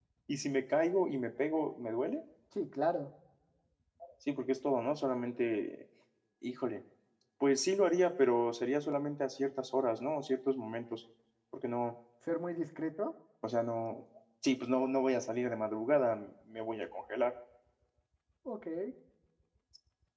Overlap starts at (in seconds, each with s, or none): none